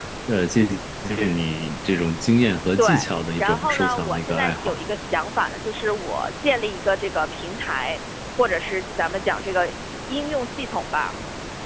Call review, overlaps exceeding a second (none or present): present